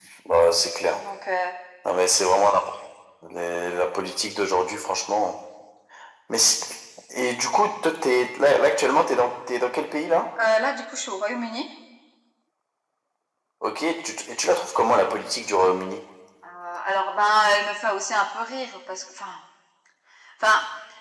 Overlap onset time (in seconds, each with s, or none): none